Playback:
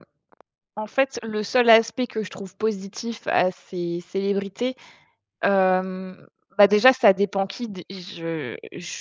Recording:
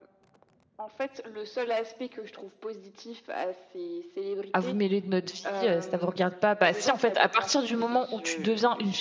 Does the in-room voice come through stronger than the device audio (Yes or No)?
Yes